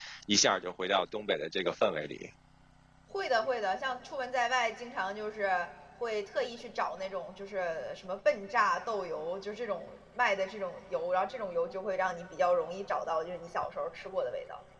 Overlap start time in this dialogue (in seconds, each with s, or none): none